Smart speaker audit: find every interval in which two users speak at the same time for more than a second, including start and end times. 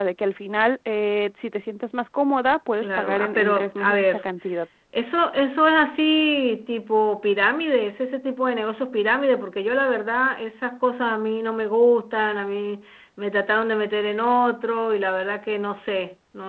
2.8-4.2

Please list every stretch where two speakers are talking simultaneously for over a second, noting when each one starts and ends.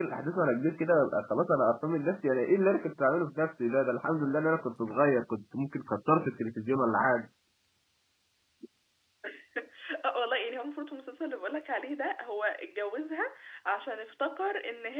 none

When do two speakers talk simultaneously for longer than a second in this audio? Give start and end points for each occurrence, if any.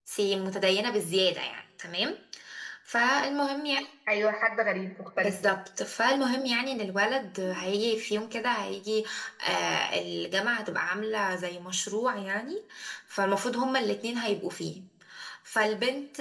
none

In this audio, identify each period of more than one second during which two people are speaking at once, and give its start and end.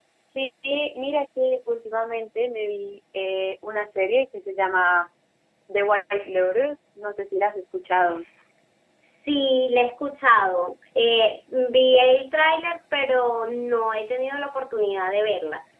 none

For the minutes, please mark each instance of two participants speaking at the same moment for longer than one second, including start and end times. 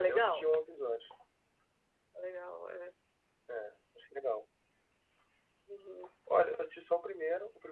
none

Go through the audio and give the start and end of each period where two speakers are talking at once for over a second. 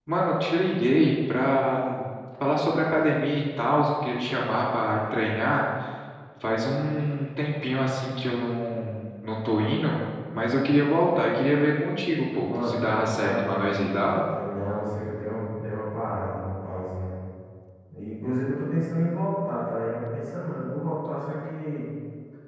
12.4-14.0

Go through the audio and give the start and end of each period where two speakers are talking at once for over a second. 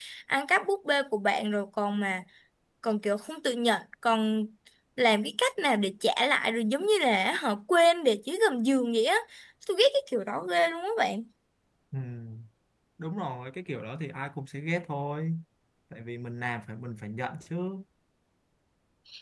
none

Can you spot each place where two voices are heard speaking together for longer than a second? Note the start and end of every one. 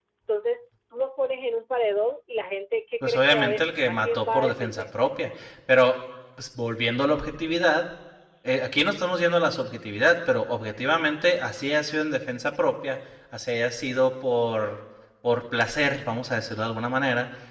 3.0-4.8

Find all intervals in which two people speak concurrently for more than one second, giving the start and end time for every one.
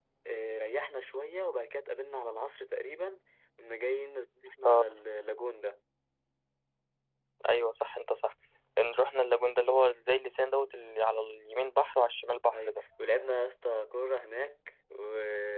none

